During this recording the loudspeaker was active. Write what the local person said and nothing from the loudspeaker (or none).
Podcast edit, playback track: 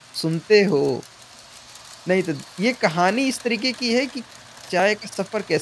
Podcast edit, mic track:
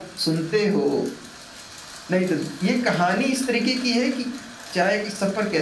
none